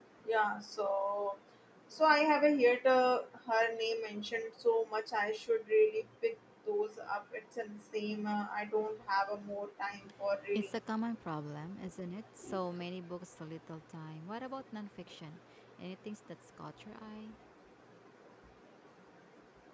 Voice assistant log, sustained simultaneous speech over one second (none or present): none